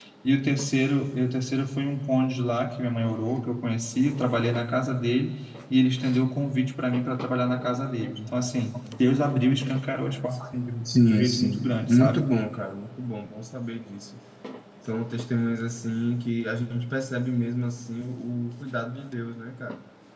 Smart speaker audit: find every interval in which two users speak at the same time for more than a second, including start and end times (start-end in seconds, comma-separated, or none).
10.8-12.2